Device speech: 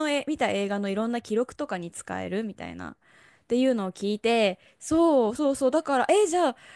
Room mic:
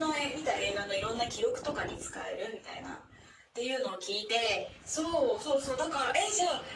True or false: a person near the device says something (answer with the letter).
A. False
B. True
A